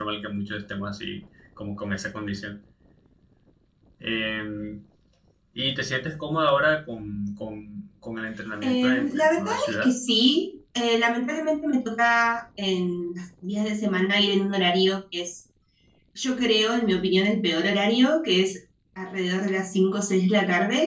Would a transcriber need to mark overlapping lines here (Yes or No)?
Yes